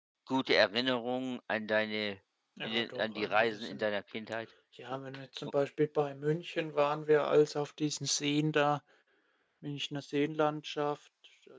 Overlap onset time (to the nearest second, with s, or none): 3 s